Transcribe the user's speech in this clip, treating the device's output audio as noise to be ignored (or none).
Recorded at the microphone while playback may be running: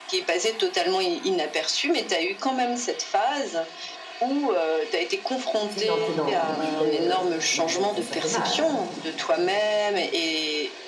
tu sais, quand tu es dans la bouche, ben heu, malgré tout, ça fait mal, hein, donc heu, ouais.